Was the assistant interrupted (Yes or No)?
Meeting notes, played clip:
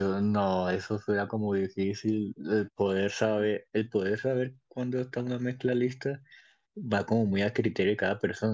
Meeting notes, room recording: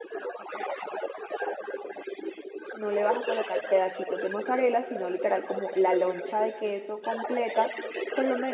Yes